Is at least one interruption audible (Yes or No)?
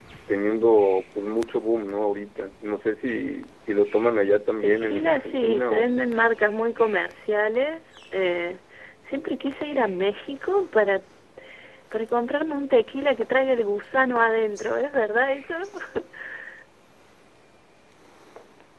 Yes